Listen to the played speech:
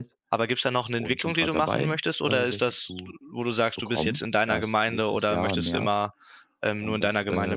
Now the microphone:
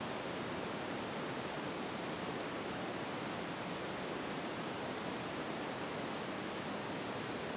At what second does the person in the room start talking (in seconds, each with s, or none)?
none